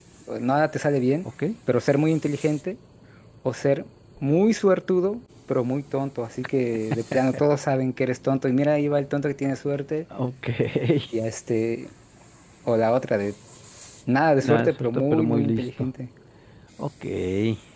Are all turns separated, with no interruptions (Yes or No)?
No